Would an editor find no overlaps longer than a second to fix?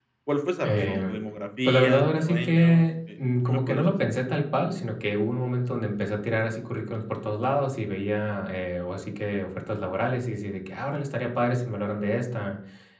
No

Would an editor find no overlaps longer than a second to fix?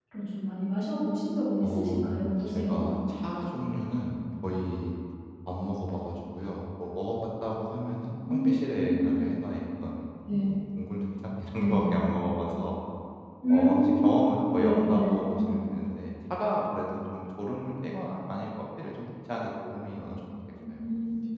No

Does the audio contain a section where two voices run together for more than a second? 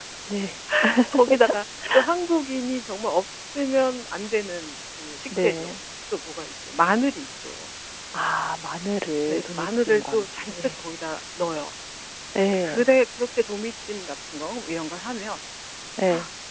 Yes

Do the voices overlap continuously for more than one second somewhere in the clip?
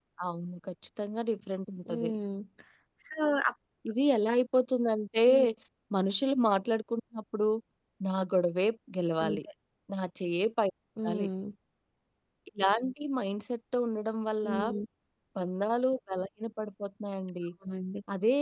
No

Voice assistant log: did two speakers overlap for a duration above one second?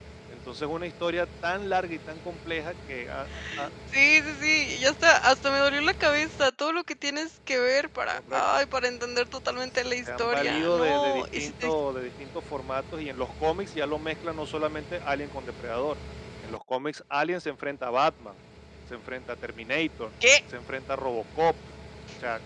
Yes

